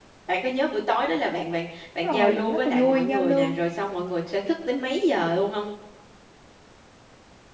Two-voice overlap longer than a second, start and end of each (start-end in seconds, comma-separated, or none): 2.0-3.5